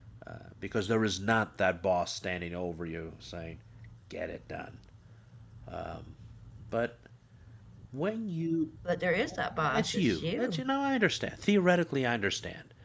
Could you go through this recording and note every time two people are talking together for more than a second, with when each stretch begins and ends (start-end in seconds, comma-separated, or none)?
9.3-10.6